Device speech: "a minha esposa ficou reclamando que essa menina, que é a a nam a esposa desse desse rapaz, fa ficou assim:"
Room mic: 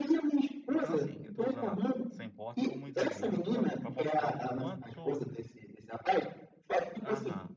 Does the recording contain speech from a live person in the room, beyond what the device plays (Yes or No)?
Yes